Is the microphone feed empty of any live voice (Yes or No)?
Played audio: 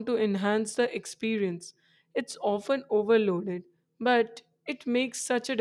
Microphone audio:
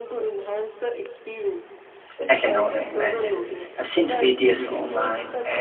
No